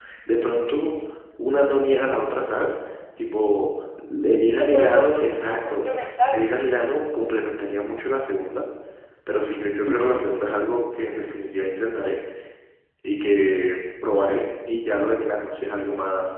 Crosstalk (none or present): present